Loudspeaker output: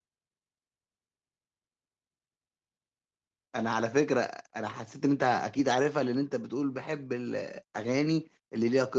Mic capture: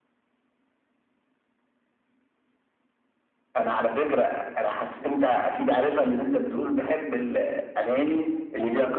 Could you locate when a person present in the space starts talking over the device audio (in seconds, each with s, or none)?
none